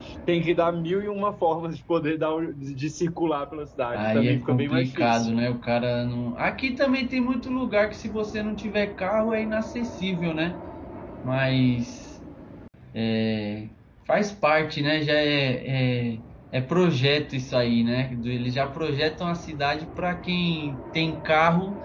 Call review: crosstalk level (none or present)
present